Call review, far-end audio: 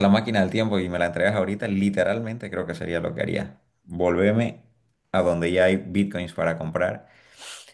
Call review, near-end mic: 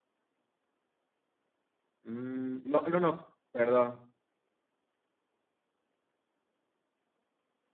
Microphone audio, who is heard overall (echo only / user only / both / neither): user only